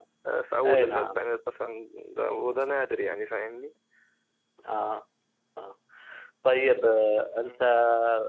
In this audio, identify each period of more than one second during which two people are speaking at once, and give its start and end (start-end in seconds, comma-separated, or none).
none